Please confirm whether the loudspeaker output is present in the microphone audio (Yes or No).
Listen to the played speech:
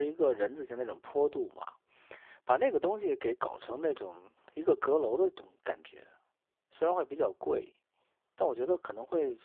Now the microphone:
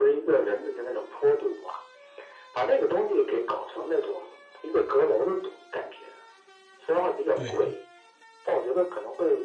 Yes